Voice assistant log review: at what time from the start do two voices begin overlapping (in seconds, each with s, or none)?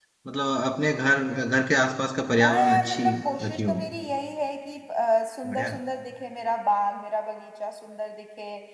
2.4 s